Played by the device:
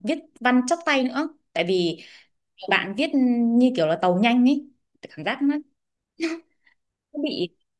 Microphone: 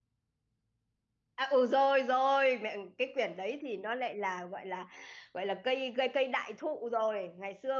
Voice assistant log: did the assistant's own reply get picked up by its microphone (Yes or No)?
No